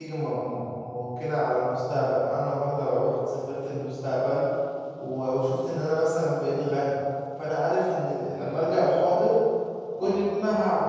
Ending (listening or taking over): listening